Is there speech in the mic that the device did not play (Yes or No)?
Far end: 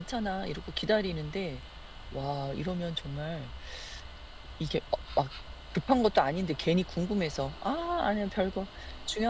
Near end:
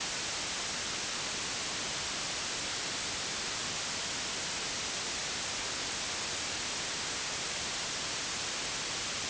No